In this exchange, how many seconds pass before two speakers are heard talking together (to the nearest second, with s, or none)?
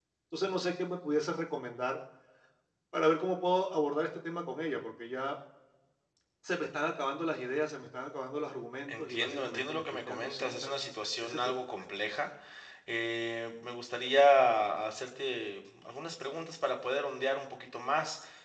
9 s